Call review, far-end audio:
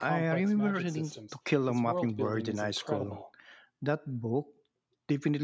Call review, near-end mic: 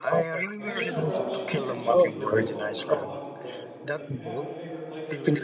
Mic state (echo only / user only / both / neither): both